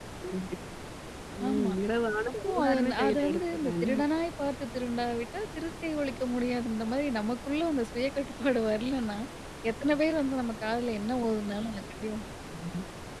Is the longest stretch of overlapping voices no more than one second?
No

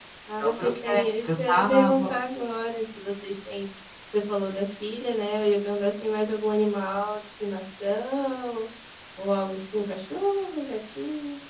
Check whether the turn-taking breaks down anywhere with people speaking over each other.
Yes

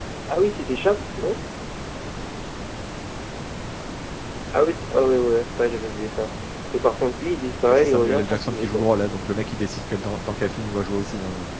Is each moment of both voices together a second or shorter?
No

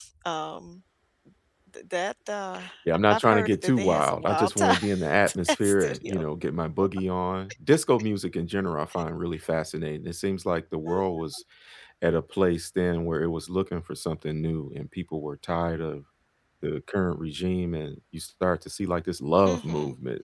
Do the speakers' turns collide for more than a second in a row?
Yes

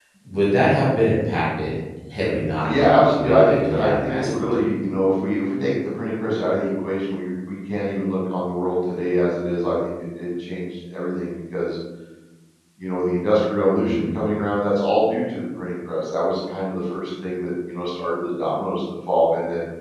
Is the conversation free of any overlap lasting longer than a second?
No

